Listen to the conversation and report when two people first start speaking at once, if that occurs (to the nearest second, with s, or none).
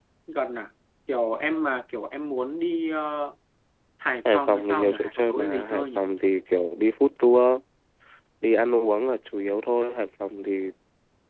4 s